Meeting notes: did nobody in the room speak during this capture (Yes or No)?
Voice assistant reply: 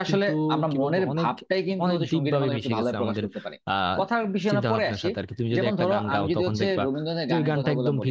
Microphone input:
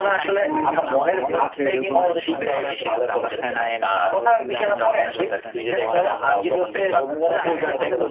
No